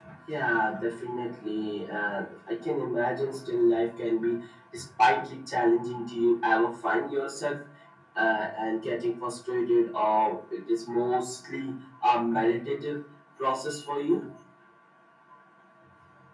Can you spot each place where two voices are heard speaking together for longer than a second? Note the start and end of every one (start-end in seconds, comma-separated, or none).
none